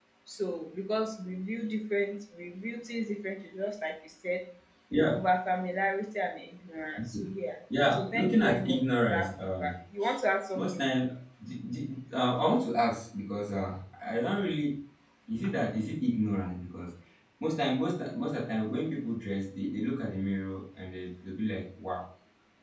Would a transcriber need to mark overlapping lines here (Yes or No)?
Yes